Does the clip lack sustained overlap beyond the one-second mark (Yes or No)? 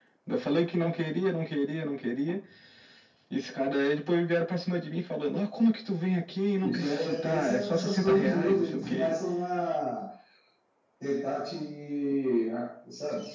No